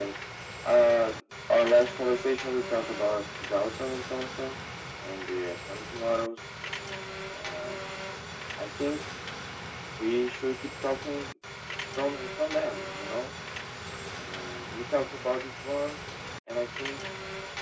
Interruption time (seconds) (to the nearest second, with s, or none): none